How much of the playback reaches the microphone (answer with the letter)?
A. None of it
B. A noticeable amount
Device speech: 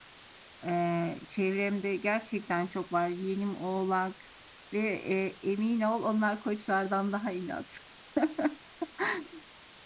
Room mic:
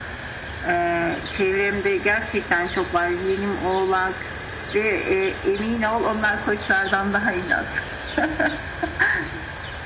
B